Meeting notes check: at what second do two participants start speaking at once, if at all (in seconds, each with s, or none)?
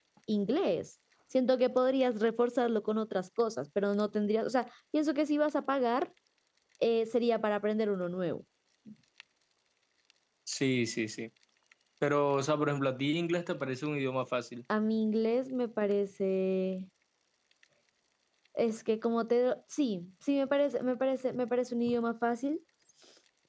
none